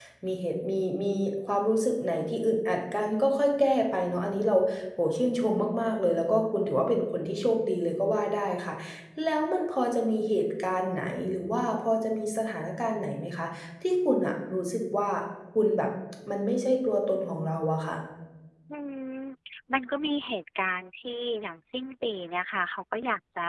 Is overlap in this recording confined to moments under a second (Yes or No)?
Yes